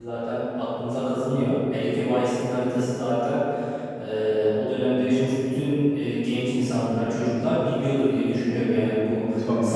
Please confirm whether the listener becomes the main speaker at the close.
No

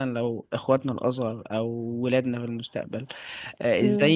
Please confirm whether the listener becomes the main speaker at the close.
No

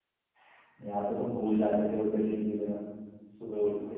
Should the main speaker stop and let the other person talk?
Yes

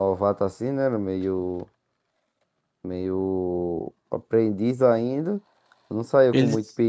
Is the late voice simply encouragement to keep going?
Yes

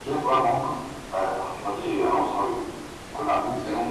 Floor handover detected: No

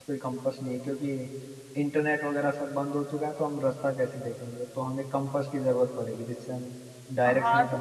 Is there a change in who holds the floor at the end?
Yes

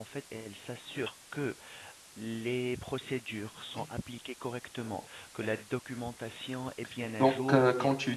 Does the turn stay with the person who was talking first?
No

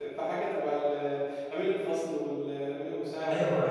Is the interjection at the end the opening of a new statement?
Yes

